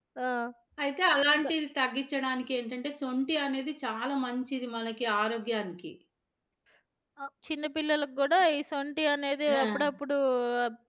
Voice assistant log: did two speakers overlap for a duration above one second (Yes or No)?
No